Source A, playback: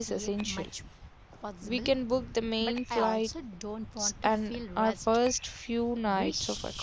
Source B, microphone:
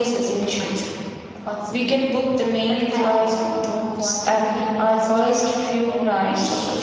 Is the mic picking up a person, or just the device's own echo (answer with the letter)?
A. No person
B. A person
B